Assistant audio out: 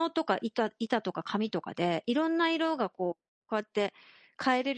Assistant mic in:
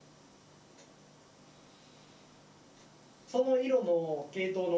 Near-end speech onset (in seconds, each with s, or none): 3.2 s